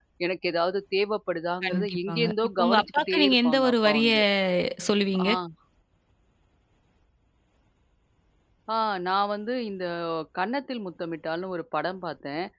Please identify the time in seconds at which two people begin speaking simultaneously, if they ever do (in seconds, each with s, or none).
1.6 s